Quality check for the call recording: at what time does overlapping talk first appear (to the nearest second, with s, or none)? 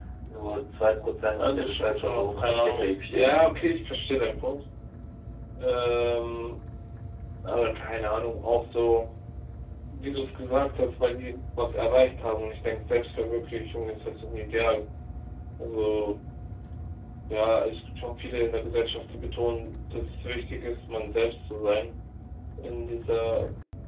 1 s